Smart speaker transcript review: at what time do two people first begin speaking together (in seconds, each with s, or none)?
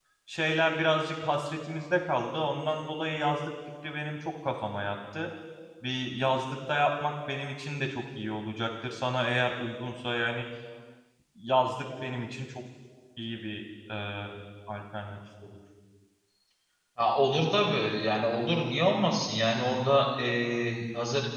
none